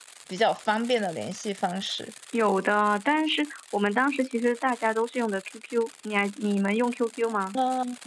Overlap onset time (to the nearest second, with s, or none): none